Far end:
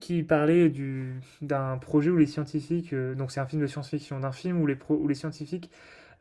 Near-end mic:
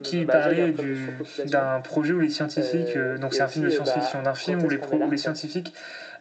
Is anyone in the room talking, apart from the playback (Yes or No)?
Yes